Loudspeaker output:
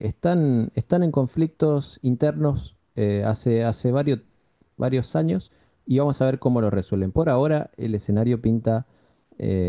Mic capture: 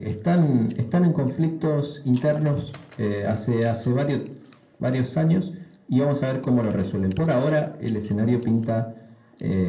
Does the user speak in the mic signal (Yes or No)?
No